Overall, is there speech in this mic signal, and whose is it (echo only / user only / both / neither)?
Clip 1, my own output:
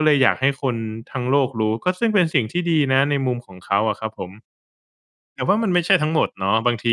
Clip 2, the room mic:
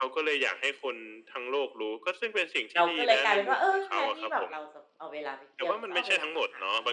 both